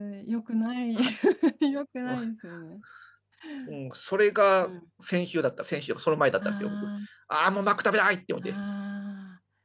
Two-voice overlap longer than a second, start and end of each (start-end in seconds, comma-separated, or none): none